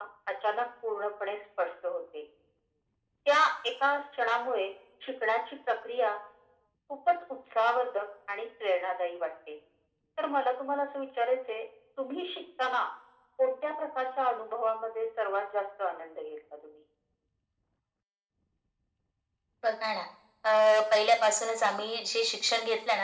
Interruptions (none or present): none